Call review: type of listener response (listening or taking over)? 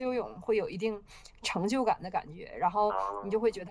listening